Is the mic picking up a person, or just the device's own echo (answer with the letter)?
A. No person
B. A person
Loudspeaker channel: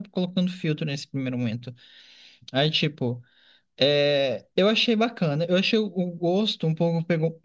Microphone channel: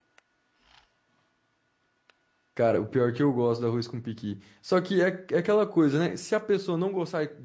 B